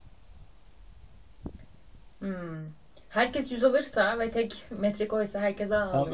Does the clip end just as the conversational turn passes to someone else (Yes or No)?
Yes